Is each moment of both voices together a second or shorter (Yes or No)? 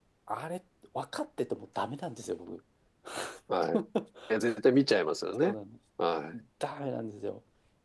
Yes